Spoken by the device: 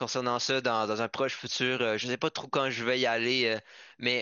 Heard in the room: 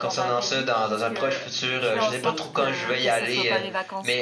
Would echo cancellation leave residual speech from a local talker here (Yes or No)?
Yes